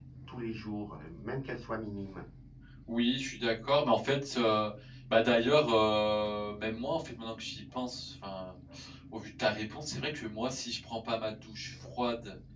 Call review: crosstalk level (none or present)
none